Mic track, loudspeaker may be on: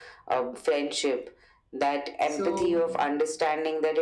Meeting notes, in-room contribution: present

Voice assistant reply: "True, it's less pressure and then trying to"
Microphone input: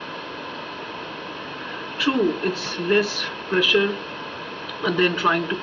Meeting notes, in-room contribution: none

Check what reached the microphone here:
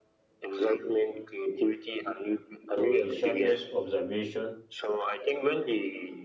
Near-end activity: present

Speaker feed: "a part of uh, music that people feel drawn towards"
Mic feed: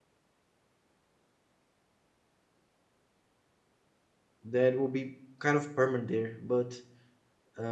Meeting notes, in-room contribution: present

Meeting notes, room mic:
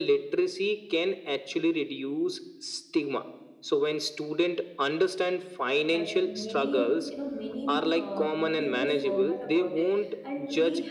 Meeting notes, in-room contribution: present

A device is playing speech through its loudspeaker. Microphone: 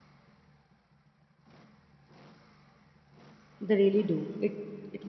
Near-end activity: present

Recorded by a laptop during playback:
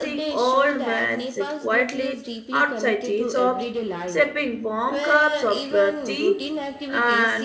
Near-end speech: present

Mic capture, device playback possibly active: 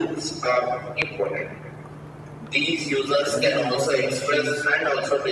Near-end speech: present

